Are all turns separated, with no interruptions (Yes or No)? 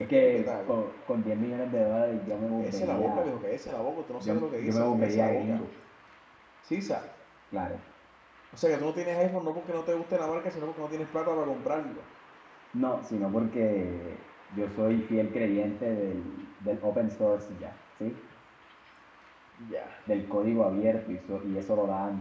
No